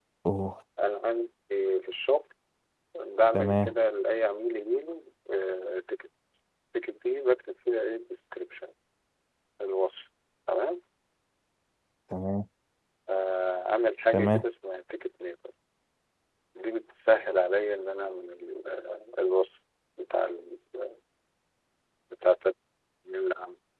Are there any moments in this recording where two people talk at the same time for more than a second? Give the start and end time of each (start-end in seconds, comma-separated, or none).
none